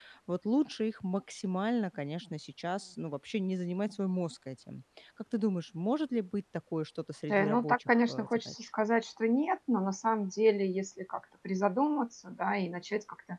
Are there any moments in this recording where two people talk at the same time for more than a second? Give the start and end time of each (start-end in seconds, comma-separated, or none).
7.3-8.5